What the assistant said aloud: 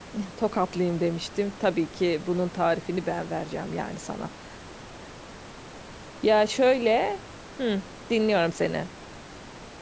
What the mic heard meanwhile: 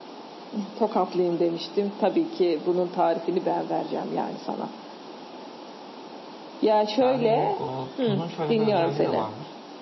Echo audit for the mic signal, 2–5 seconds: echo only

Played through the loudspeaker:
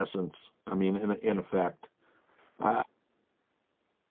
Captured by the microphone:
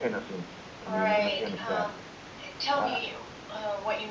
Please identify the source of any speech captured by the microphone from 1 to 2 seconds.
both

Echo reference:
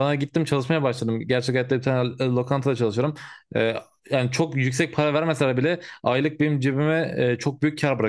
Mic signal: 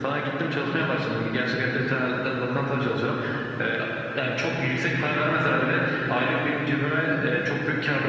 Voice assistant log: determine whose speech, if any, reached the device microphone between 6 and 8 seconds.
echo only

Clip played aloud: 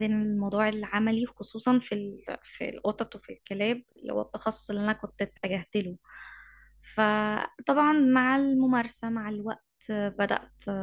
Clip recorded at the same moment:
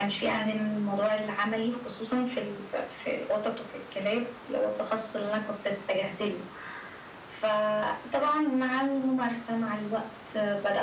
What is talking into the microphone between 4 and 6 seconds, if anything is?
echo only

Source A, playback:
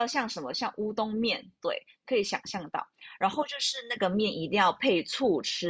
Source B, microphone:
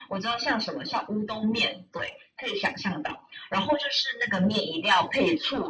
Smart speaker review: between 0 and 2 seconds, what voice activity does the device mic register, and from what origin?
echo only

